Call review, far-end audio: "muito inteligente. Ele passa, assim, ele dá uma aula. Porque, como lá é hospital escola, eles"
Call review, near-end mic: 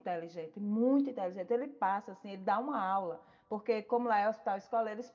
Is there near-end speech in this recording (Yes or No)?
No